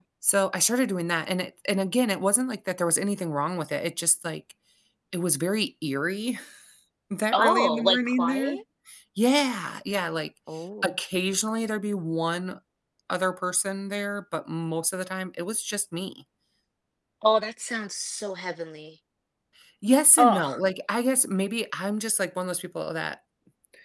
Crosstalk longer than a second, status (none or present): present